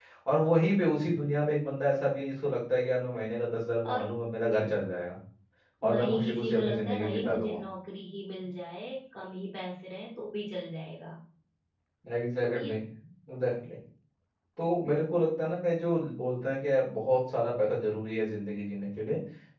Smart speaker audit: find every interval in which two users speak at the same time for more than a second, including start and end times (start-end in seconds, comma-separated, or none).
5.9-7.6